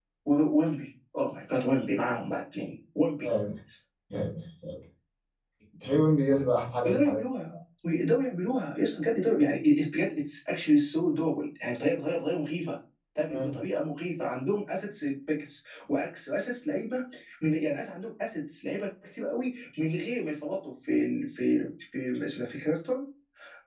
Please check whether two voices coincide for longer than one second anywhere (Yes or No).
No